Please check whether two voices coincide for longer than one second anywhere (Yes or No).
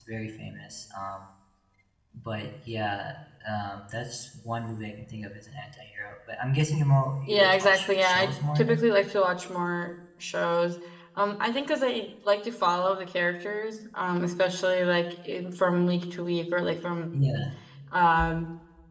Yes